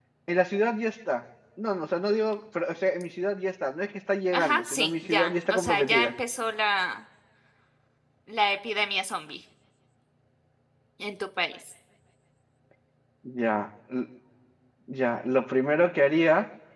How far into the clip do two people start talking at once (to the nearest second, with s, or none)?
4 s